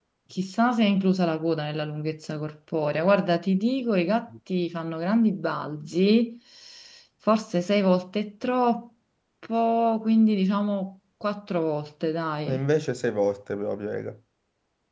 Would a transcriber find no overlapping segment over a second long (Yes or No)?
Yes